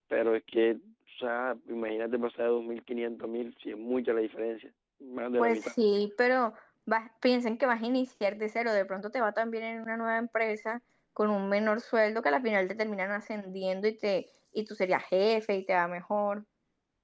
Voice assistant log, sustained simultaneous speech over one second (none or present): none